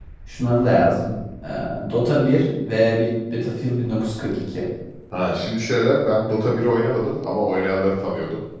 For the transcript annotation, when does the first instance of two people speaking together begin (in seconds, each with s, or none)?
none